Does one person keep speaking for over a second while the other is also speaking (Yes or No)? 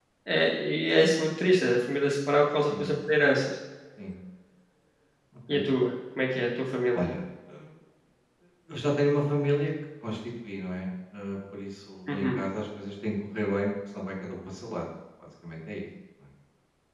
No